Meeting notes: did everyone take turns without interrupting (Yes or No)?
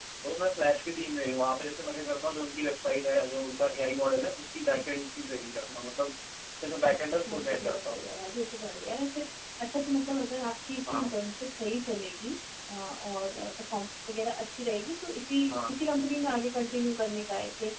No